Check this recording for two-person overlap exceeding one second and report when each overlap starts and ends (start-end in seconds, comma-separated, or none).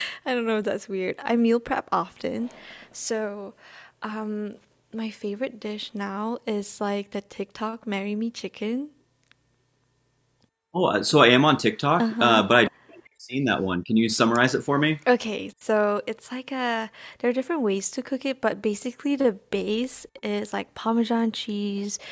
none